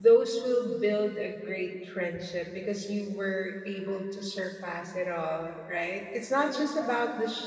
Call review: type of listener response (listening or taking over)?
listening